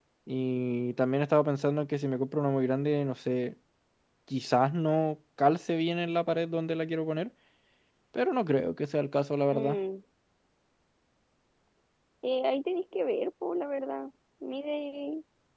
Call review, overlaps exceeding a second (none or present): none